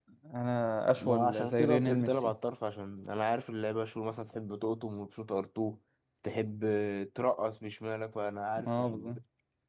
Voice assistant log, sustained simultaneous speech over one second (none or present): present